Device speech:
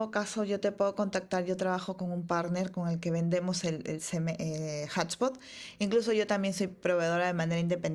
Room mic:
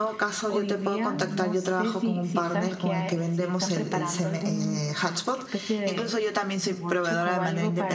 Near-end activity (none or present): present